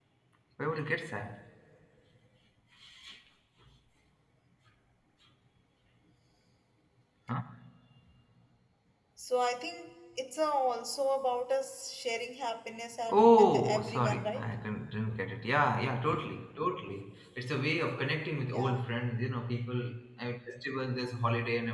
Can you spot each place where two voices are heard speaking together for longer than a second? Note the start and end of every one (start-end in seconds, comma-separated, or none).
13.1-14.5